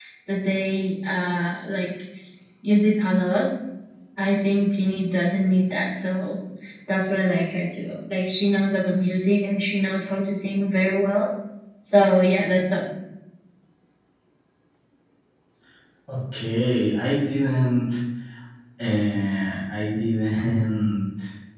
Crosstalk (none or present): none